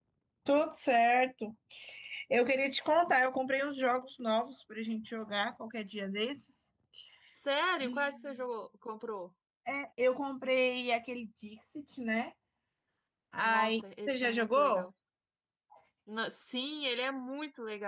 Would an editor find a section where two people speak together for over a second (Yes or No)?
Yes